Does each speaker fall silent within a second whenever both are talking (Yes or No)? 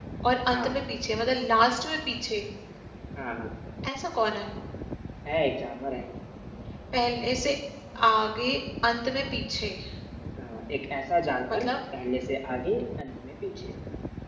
Yes